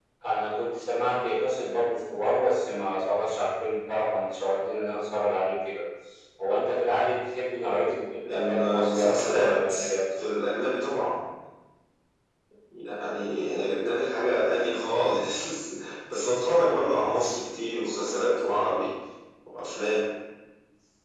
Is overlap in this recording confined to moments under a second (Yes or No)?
No